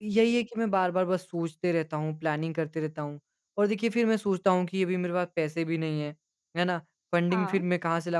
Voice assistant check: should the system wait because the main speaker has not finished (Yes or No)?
Yes